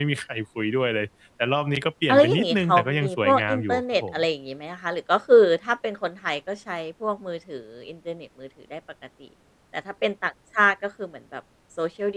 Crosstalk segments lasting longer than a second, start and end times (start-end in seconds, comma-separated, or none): 2.1-4.2